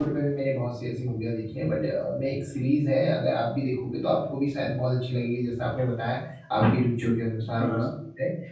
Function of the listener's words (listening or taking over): listening